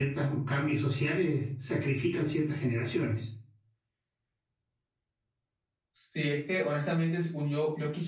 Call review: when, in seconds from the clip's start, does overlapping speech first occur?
none

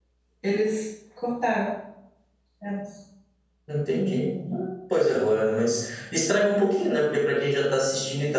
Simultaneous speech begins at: none

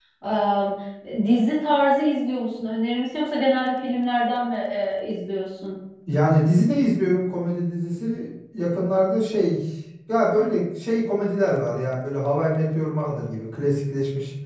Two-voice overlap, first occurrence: none

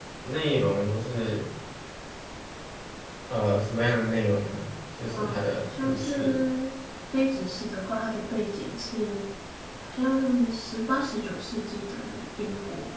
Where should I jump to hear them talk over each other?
5.1 s

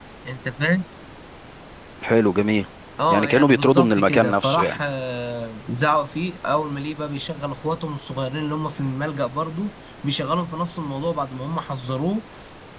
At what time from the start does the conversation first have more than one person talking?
3.1 s

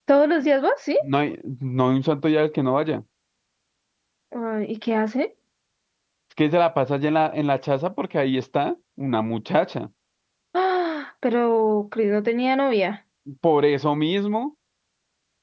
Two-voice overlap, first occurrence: none

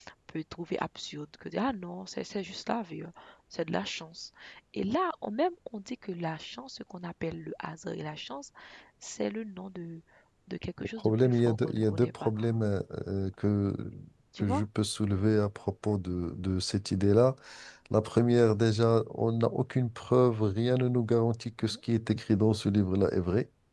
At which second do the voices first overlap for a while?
10.8 s

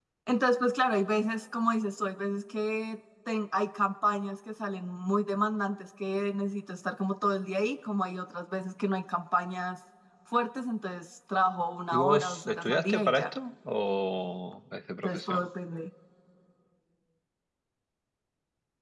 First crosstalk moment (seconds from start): 11.9 s

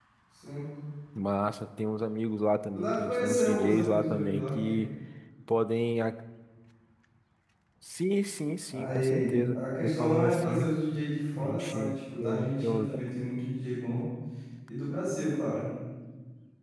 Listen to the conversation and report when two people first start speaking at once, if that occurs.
2.8 s

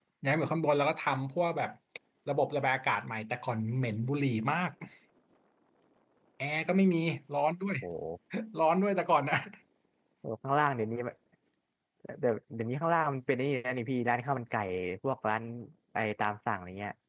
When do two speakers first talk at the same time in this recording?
none

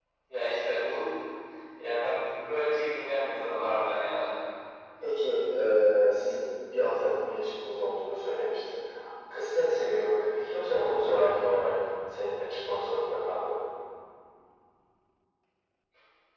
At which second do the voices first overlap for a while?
none

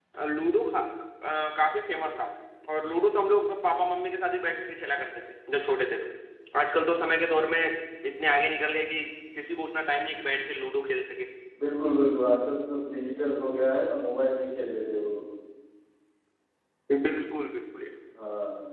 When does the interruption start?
none

